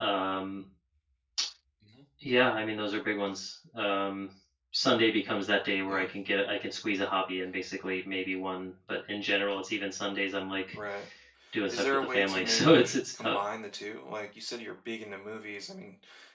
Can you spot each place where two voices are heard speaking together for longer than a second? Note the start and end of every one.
11.7-13.4

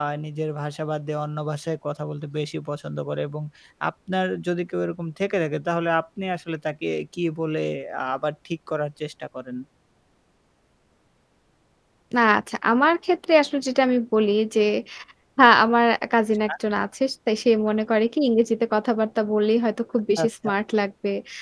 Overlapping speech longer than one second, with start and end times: none

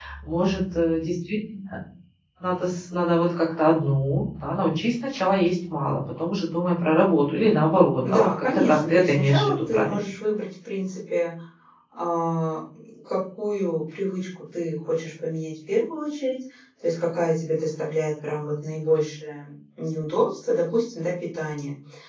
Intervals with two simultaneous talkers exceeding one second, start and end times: 8.1-10.0

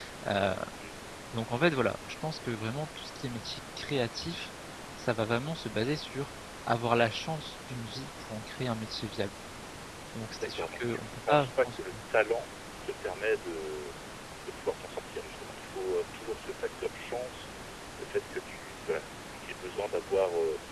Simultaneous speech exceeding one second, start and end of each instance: 10.3-11.8

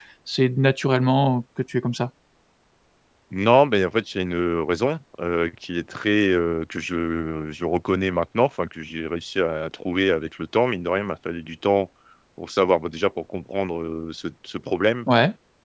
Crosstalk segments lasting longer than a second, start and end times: none

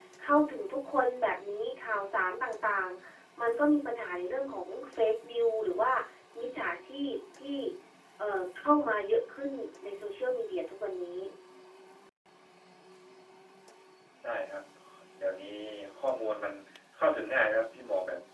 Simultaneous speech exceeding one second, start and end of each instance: none

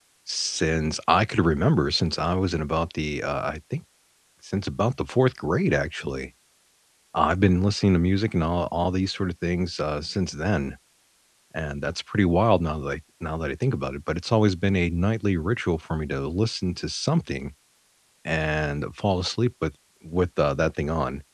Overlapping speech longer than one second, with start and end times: none

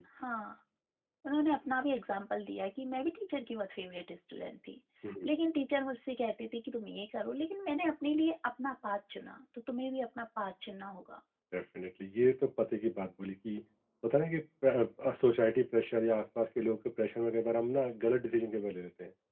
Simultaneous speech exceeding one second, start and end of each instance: none

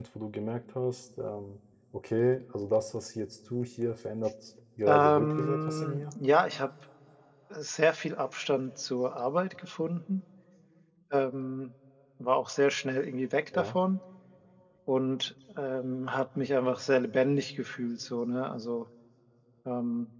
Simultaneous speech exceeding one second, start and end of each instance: 4.9-6.1

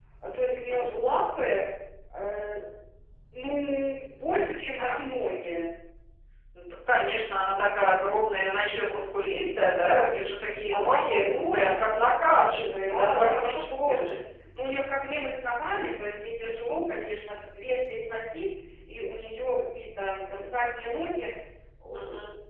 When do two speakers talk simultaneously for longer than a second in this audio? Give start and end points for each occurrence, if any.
10.7-12.0, 12.8-14.1

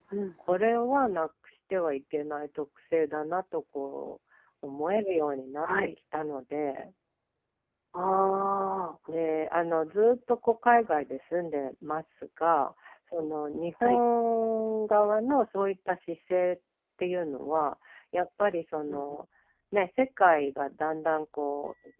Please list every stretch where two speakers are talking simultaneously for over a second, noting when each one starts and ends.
none

